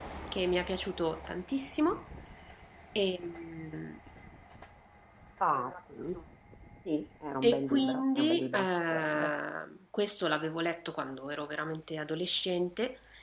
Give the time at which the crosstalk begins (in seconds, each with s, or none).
7.4 s